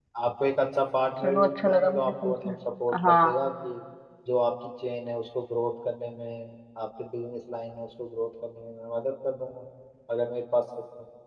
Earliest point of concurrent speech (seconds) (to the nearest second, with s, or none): 1 s